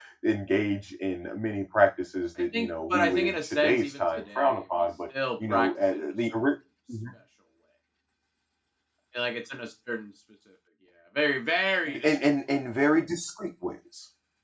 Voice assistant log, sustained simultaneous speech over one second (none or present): present